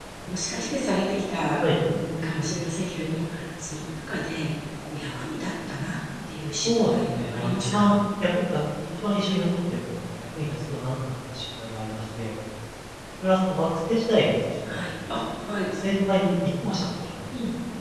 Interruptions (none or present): present